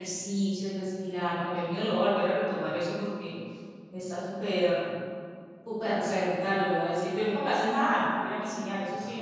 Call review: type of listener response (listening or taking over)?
taking over